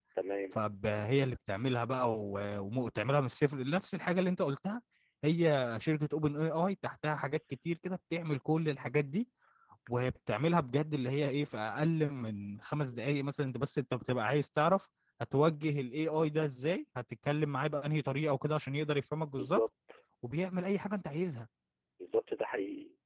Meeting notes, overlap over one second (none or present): none